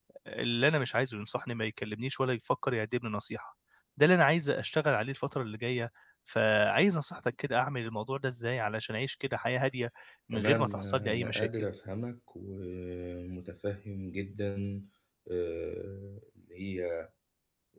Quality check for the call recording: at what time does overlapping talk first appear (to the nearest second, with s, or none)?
10 s